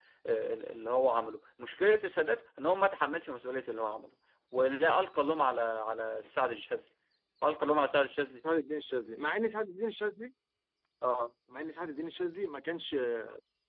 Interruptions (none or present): none